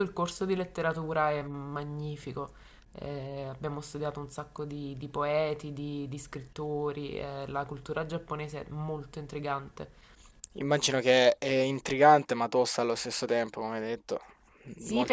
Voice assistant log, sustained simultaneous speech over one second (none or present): none